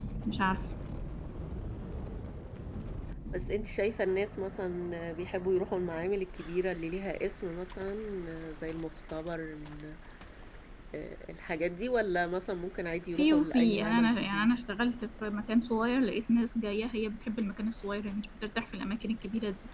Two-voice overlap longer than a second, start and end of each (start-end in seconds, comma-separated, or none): 13.2-14.5